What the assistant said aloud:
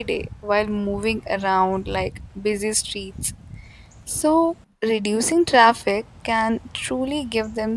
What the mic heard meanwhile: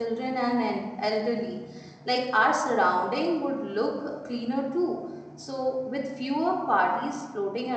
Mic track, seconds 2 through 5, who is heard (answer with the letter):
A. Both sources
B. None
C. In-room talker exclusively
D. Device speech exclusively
C